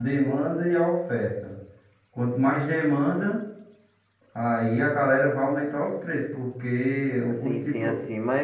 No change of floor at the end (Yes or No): No